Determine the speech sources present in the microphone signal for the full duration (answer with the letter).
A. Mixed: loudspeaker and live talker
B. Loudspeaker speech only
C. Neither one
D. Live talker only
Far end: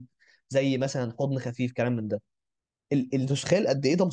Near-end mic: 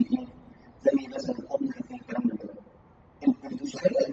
B